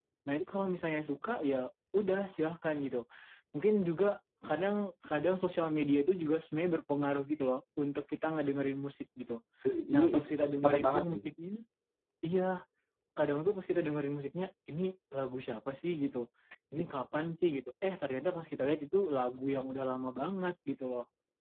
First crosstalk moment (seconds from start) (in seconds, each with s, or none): 9.9 s